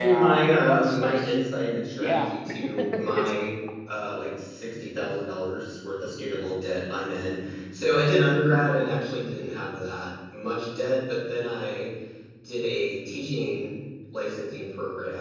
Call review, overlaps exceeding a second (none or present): present